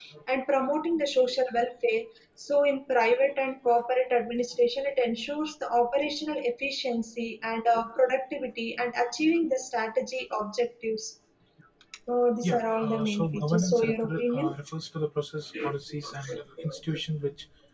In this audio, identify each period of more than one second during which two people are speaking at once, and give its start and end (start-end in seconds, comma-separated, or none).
12.4-14.5